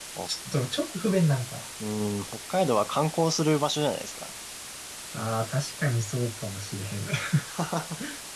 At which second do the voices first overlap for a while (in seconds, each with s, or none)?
none